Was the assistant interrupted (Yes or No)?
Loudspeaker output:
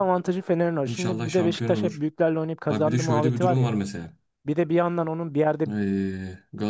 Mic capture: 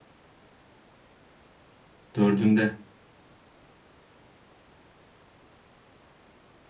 Yes